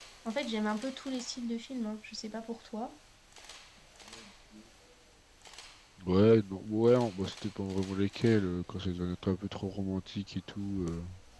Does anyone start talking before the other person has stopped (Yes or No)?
No